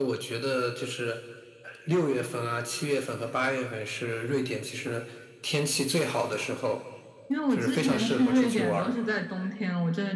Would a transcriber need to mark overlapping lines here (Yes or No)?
Yes